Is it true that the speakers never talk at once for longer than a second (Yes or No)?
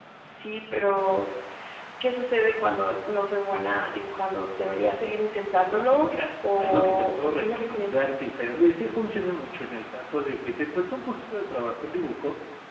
No